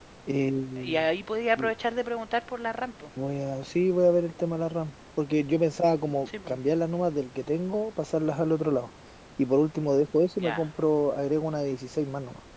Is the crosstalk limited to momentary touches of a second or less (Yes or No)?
Yes